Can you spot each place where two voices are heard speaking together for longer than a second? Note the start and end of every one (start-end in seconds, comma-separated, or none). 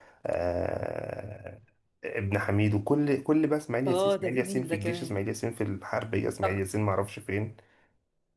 3.9-5.2